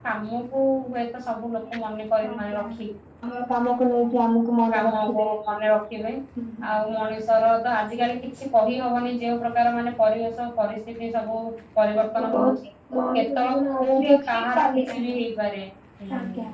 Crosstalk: present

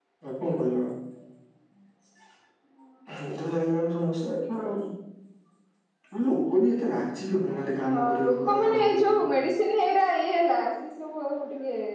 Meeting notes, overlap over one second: present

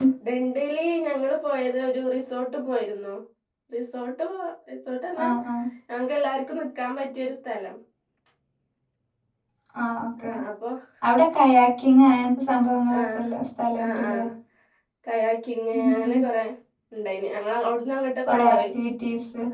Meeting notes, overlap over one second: none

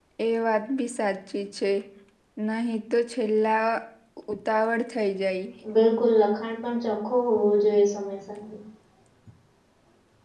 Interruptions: none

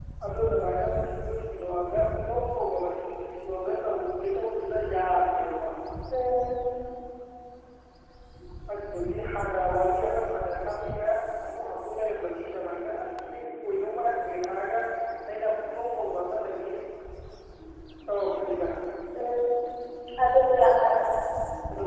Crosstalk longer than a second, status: none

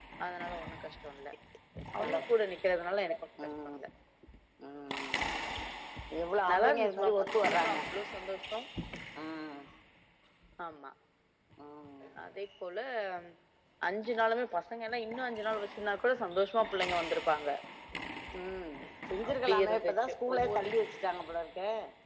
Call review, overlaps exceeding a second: present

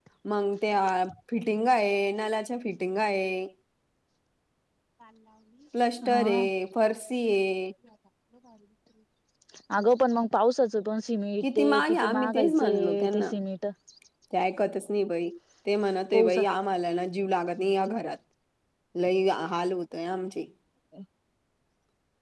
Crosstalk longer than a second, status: present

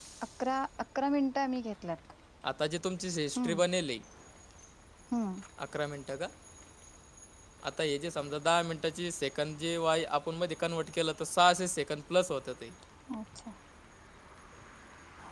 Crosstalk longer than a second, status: none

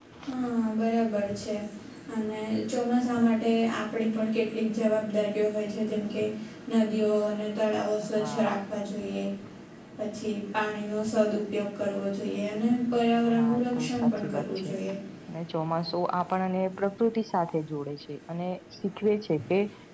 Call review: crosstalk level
present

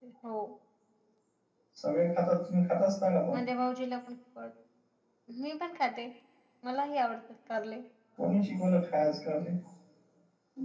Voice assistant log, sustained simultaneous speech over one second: none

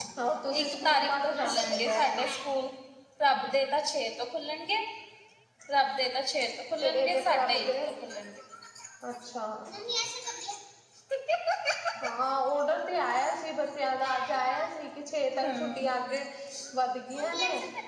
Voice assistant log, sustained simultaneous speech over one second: present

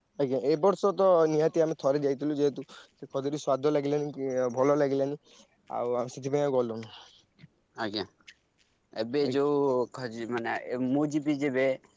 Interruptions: none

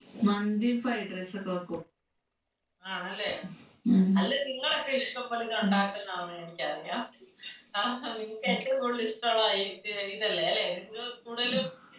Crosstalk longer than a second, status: none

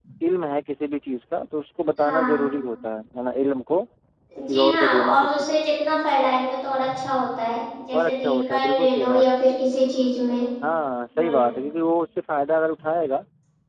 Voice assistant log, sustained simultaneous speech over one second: present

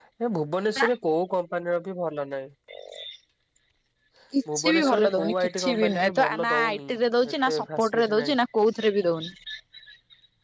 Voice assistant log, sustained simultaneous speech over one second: present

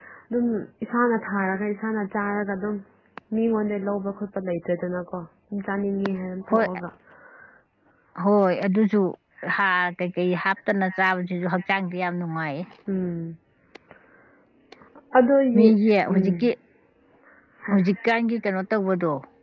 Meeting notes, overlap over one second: none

